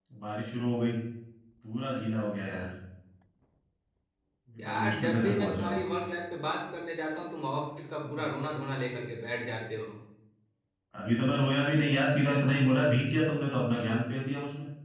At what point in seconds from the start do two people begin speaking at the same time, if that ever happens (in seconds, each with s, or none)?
4.6 s